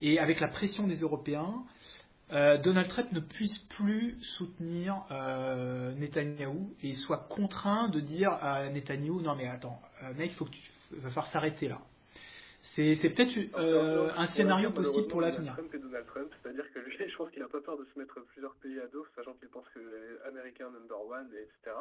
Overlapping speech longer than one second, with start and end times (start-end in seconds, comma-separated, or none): 13.5-15.5